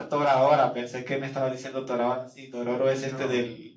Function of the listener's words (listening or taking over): listening